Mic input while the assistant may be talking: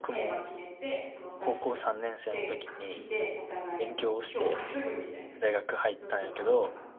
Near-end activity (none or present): present